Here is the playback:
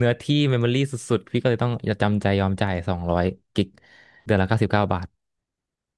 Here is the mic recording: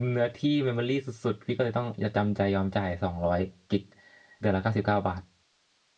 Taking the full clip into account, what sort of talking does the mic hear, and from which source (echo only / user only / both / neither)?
echo only